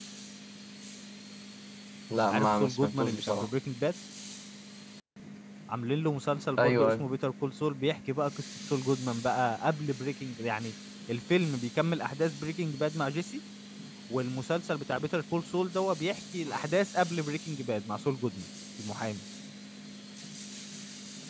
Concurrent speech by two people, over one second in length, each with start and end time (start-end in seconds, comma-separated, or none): 2.3-3.5